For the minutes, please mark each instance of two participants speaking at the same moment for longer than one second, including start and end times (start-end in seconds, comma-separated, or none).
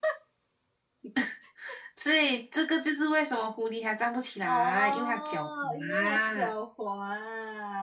4.4-6.5